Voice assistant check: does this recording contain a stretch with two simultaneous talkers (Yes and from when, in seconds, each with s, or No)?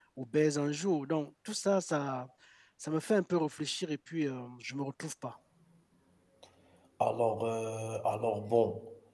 No